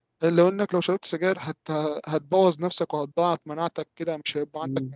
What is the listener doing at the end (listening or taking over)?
listening